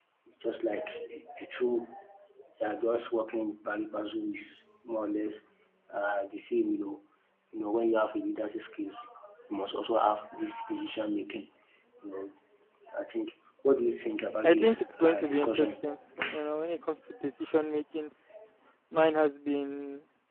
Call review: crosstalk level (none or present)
present